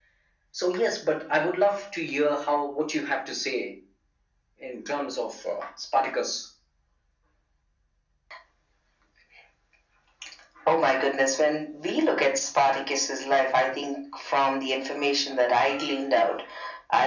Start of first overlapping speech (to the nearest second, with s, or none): none